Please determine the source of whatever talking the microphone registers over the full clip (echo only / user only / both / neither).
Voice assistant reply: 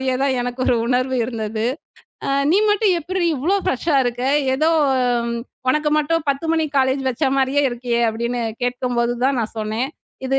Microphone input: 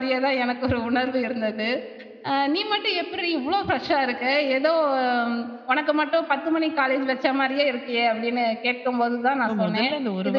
both